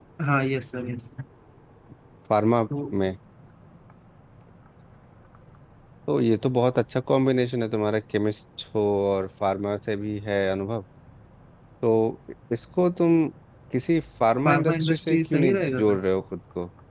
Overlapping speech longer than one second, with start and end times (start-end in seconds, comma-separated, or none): 14.5-16.0